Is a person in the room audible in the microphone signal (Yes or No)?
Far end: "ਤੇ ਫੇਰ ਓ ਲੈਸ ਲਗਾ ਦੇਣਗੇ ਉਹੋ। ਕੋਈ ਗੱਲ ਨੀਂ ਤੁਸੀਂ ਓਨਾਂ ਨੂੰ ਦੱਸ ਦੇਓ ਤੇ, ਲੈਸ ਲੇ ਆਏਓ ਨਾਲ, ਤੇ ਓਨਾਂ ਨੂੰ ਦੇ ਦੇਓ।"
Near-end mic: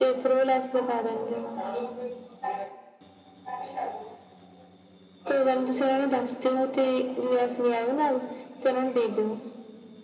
No